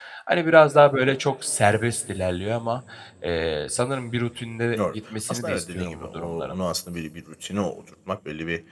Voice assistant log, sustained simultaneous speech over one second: present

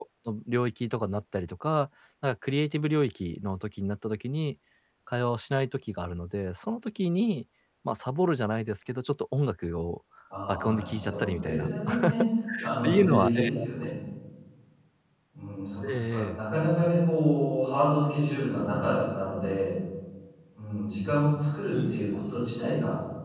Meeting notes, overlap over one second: present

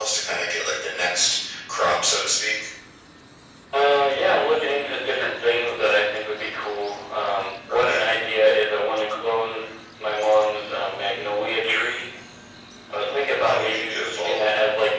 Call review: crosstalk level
present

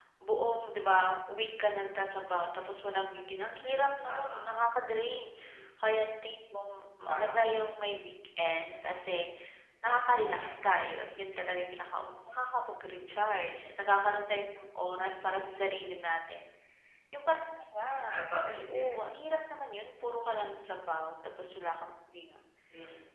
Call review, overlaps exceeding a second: none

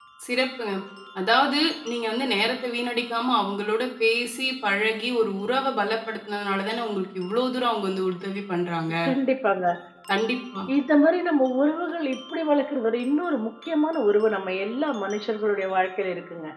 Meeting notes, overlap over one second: none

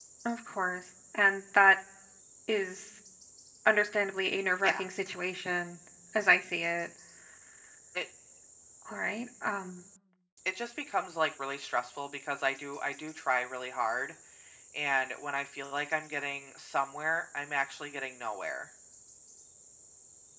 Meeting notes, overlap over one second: none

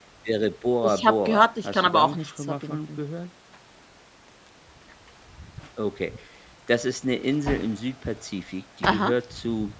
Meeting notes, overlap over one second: present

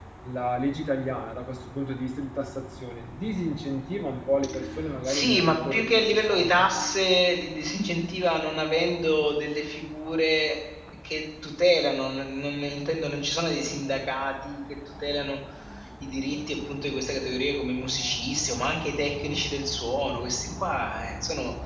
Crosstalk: present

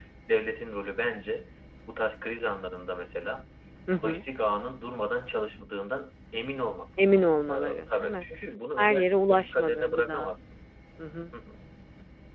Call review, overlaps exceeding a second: present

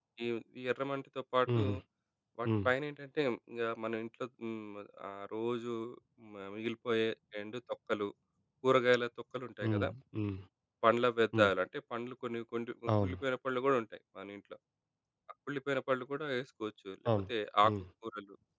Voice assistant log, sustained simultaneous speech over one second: none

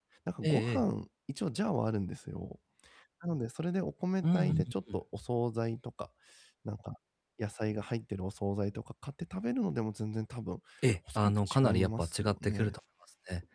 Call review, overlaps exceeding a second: present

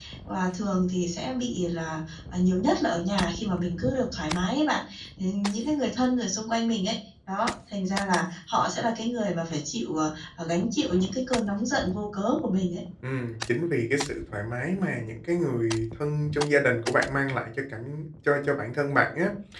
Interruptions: none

